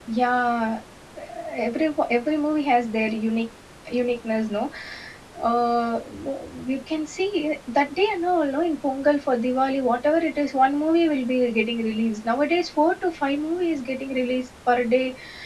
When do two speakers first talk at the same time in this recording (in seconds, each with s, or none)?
none